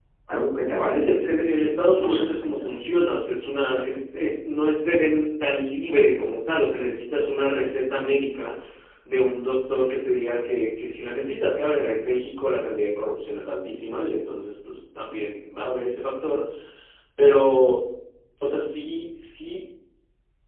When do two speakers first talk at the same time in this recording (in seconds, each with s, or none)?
0.7 s